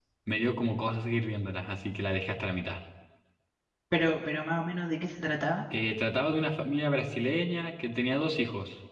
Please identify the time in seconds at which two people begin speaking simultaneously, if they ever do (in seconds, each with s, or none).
none